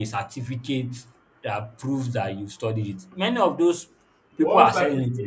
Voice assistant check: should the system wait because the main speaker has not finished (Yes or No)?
No